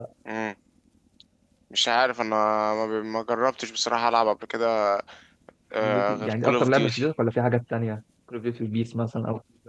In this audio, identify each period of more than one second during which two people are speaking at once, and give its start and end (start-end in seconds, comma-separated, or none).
5.8-7.0